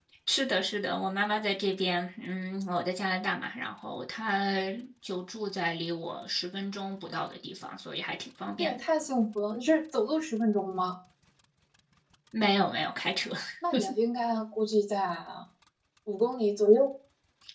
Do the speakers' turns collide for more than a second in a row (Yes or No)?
No